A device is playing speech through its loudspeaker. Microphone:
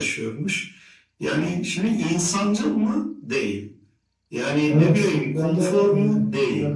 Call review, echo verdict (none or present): present